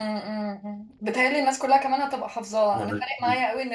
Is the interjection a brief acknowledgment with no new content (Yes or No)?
Yes